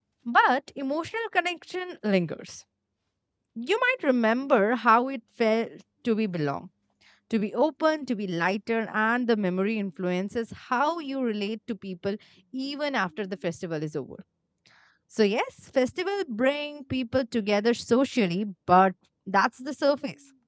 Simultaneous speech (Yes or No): No